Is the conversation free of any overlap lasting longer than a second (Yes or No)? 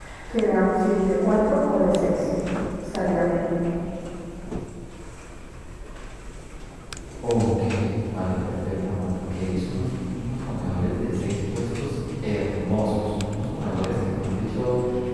Yes